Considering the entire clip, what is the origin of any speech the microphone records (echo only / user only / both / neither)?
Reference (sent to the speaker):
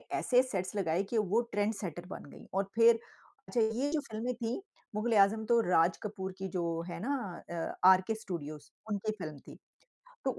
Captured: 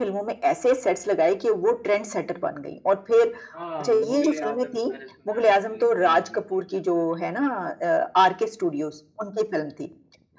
both